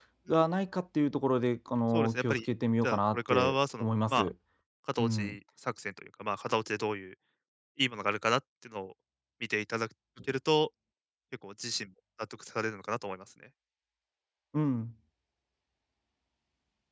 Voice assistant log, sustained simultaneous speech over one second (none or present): present